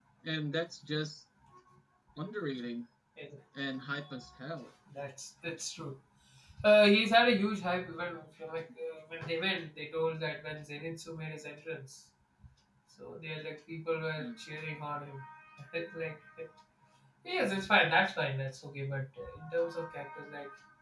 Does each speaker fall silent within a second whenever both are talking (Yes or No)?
Yes